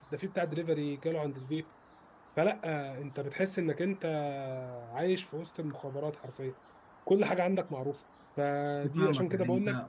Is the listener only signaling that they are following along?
No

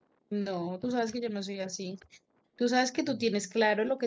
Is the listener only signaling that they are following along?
Yes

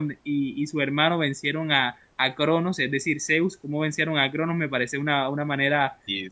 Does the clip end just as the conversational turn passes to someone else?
No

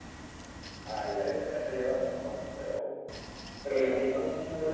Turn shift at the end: Yes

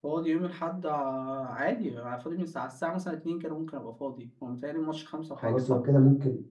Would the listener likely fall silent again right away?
No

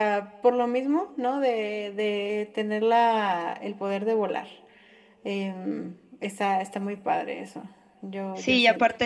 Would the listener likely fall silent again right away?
No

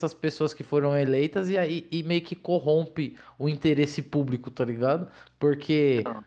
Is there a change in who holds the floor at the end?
No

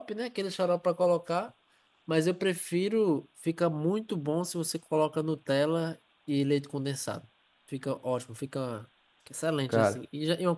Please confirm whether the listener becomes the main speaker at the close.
No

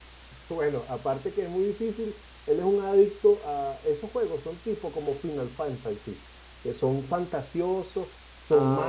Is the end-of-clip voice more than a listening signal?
No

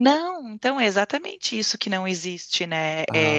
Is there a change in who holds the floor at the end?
No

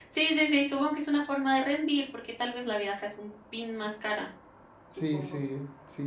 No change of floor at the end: No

